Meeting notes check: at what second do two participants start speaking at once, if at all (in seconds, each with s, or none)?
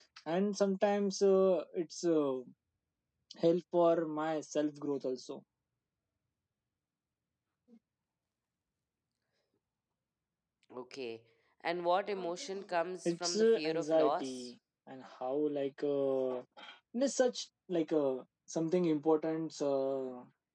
13.1 s